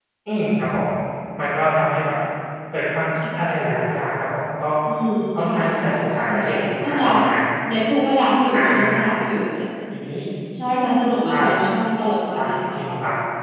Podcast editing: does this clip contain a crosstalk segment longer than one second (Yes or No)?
Yes